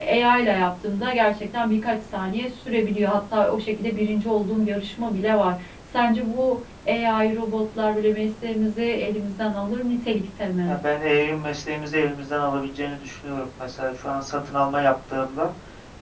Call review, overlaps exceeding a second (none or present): none